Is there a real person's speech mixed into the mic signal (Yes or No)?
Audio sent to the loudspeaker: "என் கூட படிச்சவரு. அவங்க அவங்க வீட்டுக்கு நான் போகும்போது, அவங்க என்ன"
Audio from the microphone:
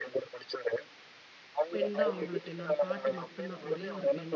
Yes